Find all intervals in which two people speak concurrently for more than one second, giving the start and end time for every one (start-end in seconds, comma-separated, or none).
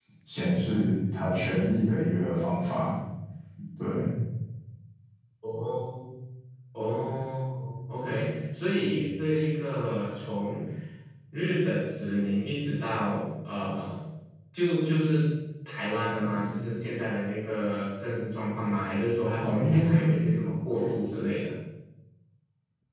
none